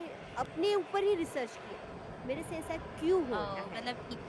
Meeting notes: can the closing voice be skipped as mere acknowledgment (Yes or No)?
No